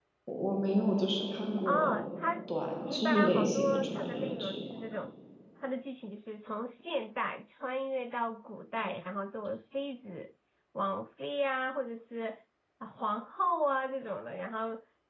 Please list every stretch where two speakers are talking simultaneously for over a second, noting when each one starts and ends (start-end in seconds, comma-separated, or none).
2.9-4.8